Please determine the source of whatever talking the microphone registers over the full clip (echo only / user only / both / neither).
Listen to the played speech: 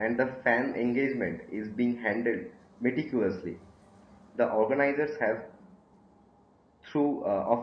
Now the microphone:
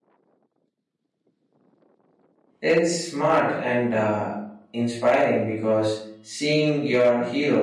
user only